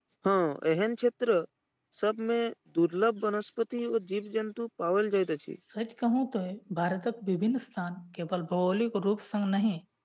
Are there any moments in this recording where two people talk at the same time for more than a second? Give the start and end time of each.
none

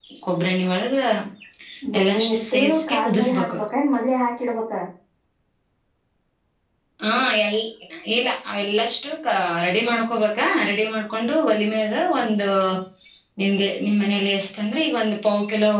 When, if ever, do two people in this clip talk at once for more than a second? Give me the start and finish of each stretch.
2.0-3.6

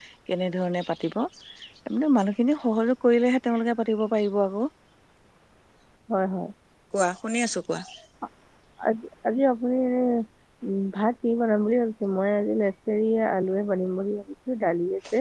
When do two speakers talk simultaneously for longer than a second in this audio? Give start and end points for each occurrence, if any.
none

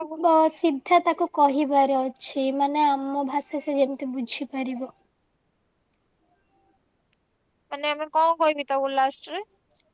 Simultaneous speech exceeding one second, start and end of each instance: none

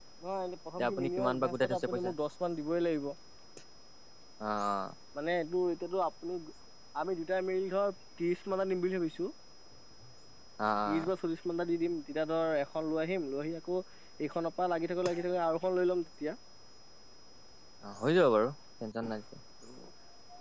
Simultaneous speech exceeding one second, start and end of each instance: 0.8-2.1

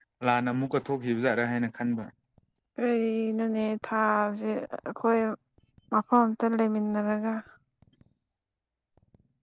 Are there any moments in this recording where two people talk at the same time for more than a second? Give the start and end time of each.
none

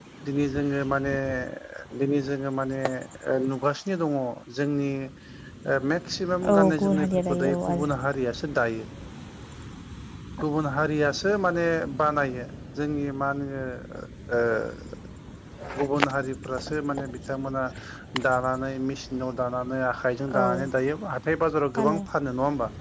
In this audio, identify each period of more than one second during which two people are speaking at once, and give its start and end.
6.5-7.9

